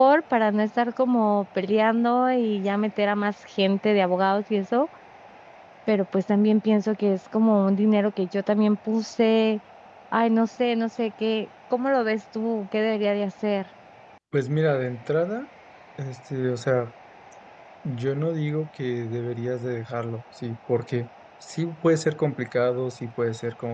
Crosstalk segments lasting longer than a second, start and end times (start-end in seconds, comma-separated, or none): none